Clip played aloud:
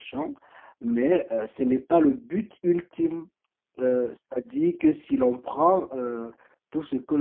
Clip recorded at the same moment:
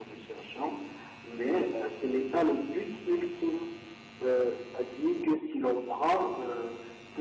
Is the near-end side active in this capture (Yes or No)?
No